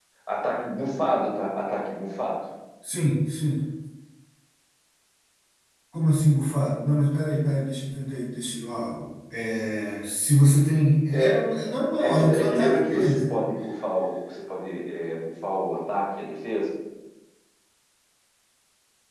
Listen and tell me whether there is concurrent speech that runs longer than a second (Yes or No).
Yes